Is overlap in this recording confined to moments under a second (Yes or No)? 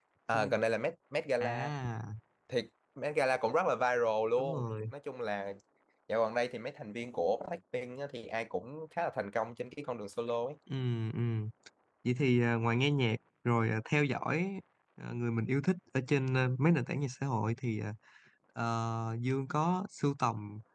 Yes